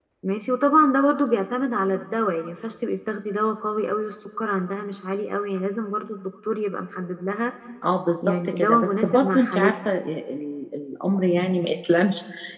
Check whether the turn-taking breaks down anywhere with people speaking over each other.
Yes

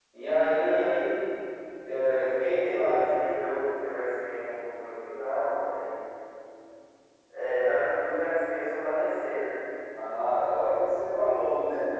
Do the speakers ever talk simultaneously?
Yes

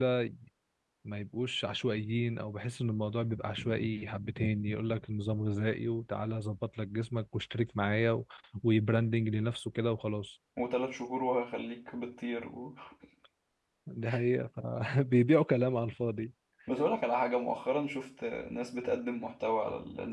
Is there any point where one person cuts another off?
No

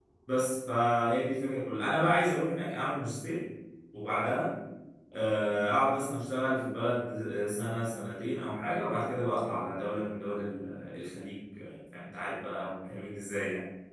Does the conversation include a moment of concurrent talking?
No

